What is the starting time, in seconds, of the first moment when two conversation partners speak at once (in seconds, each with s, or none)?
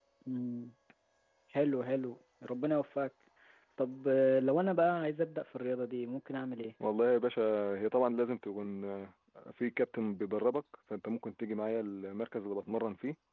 none